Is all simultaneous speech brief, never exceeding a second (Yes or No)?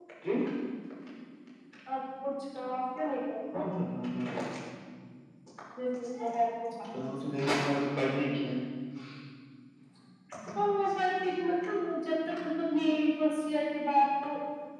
Yes